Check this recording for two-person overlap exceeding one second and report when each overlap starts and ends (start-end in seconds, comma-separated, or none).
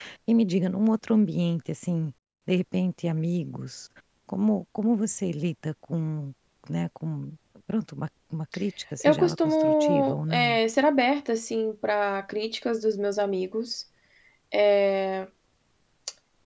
9.0-10.6